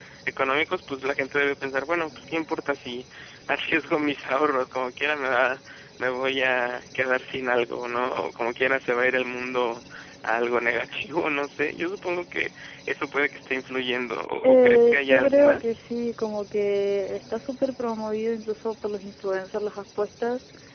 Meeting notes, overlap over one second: present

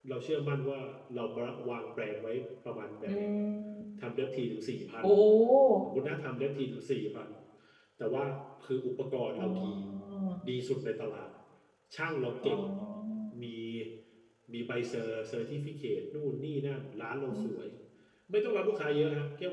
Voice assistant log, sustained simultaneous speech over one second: none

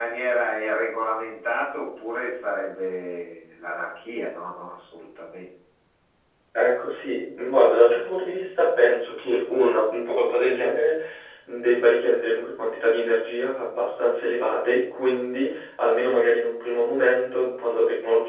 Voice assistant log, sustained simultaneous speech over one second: none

